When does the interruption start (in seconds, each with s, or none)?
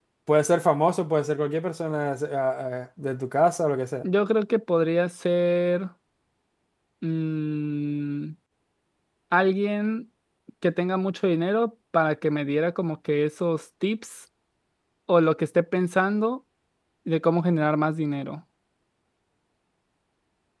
none